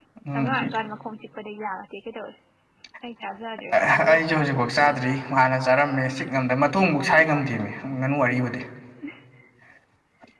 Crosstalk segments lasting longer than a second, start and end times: 3.7-4.9

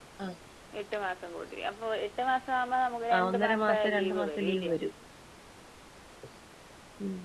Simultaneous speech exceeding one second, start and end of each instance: 3.1-4.8

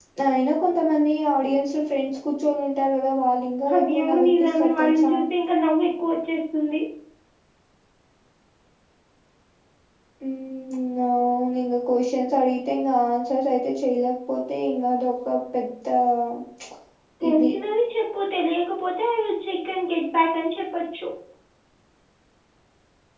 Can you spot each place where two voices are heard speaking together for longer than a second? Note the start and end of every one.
3.8-5.1

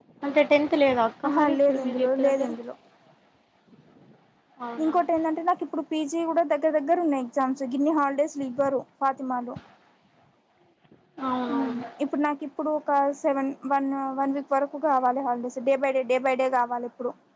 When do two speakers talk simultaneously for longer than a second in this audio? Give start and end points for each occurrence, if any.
1.3-2.5

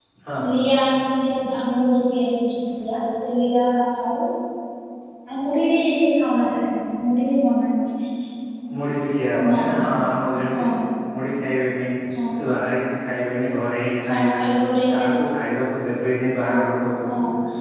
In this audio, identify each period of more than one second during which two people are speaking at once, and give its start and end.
none

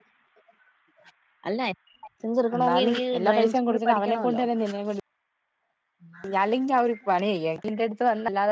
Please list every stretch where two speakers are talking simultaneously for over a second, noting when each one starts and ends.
2.6-4.4

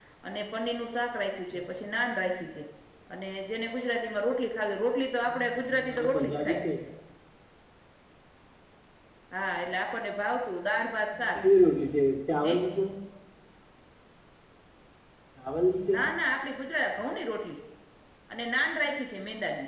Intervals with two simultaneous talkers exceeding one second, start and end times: 5.2-6.6

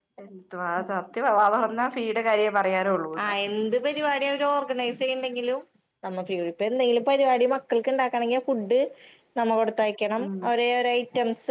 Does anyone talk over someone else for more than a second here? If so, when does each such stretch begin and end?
none

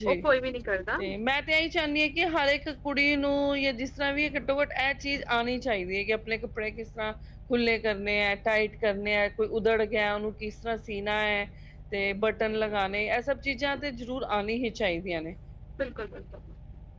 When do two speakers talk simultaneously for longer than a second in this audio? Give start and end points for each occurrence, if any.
none

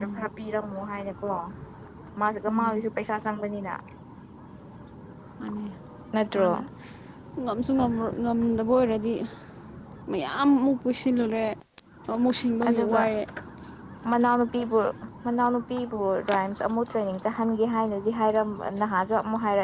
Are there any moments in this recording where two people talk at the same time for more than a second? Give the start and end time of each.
none

